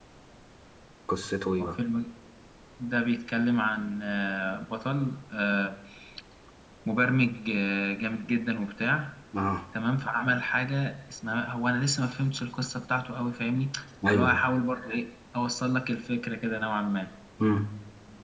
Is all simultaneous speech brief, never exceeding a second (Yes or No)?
Yes